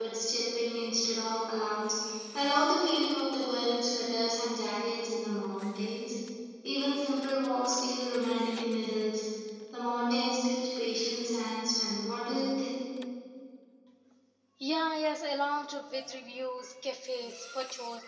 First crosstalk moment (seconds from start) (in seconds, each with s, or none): none